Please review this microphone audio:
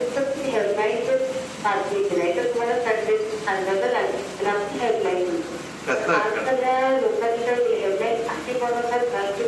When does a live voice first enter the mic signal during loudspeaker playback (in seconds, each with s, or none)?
5.9 s